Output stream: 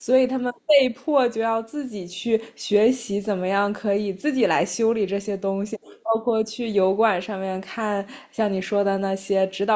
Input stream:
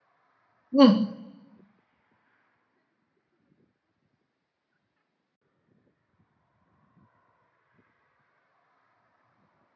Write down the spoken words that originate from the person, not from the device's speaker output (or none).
嗯，